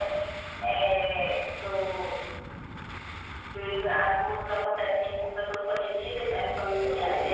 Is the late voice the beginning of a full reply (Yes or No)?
Yes